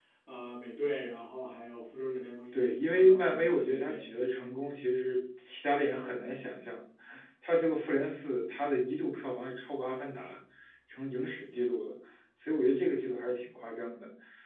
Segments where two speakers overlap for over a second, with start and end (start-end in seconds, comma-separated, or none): 2.5-4.2